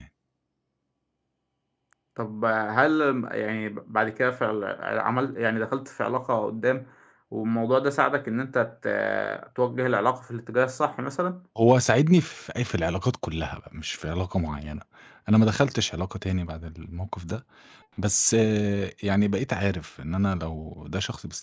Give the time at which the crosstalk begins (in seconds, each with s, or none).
none